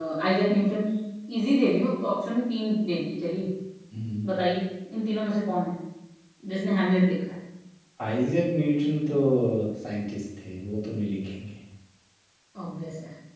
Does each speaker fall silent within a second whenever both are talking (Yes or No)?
Yes